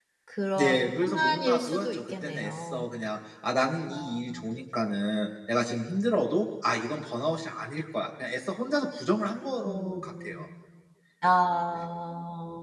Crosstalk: present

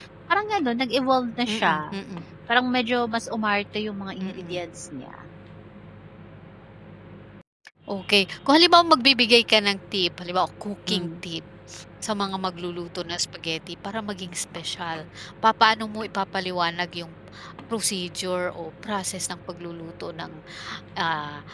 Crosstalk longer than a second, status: none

